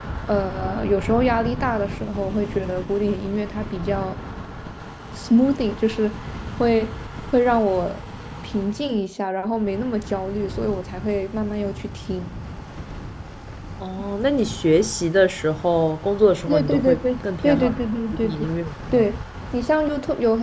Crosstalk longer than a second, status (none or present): present